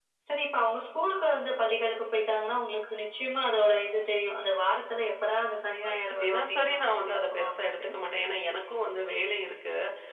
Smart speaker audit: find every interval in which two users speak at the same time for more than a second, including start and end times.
6.0-7.9

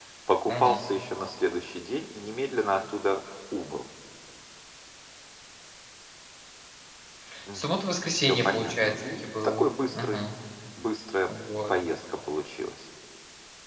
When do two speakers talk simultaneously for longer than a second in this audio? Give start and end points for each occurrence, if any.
8.2-10.2

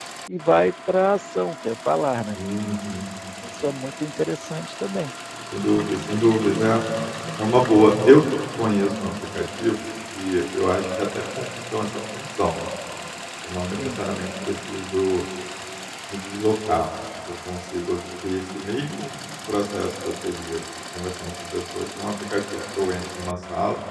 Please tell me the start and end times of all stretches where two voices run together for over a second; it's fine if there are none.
none

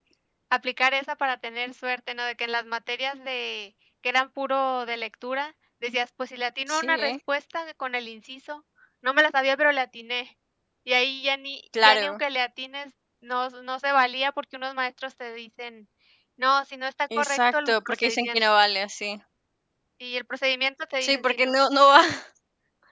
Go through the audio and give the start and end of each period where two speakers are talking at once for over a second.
17.2-18.4

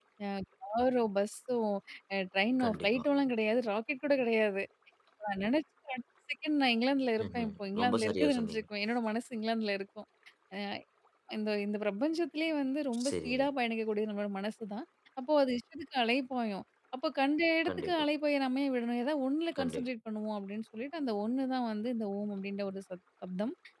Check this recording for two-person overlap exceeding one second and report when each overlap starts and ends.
7.3-8.6

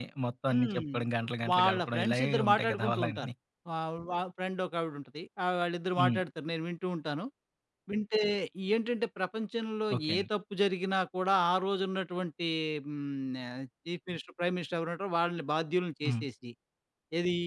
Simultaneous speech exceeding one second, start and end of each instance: 1.5-3.3

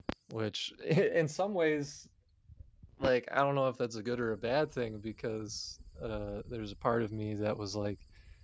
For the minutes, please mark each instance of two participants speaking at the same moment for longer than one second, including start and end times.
none

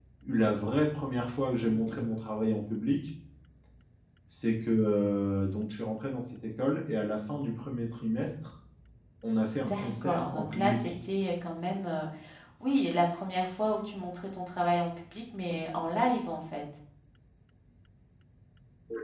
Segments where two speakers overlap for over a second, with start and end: 9.7-10.9

